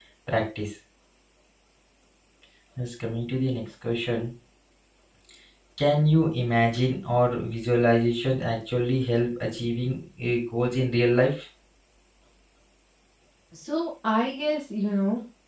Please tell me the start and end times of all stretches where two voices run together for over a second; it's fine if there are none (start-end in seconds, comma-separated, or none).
none